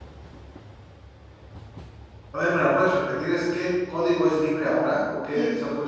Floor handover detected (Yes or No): Yes